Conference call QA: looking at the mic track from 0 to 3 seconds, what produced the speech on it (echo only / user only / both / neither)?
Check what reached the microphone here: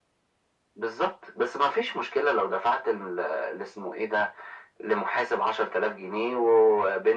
echo only